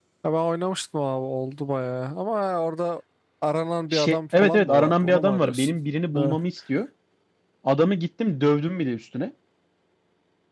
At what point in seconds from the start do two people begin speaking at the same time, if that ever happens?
3.9 s

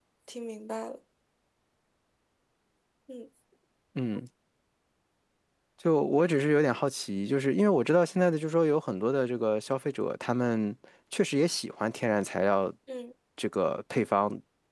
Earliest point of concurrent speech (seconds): none

